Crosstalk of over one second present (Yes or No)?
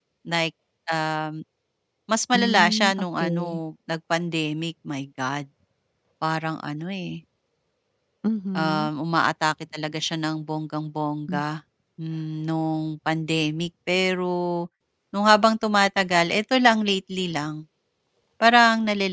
Yes